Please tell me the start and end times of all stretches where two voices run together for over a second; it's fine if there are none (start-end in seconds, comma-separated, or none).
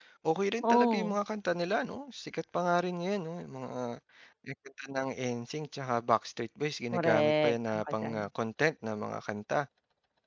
6.9-8.2